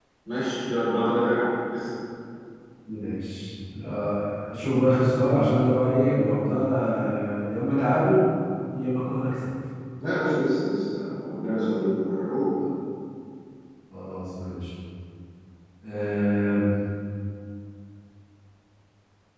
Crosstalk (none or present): none